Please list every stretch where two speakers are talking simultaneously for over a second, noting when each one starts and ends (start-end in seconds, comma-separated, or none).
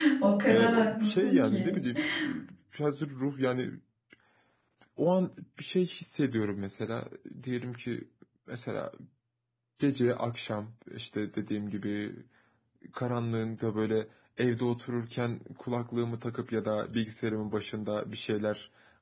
0.5-1.8